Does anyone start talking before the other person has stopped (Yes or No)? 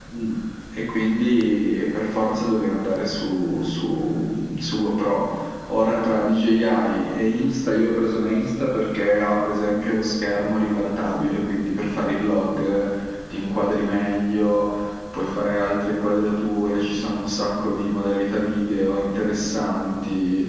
No